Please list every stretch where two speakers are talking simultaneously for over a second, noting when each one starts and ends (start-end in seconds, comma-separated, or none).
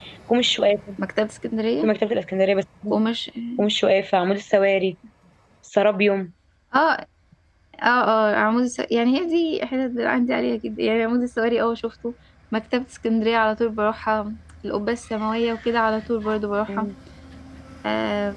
none